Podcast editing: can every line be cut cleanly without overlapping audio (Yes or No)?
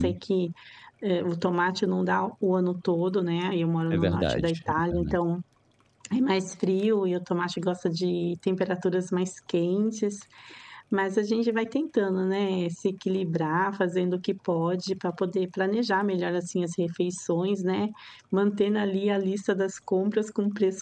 No